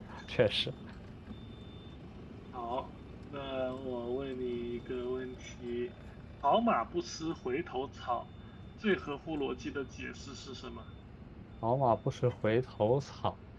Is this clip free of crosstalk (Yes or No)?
Yes